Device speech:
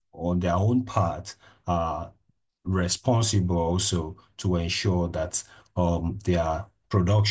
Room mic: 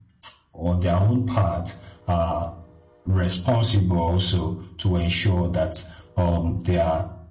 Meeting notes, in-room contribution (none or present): none